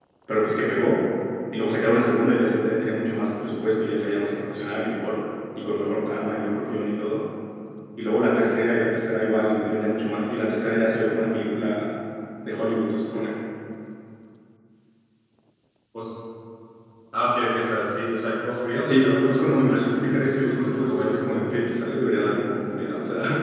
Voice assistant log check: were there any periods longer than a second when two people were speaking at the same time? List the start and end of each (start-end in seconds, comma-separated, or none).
18.8-21.2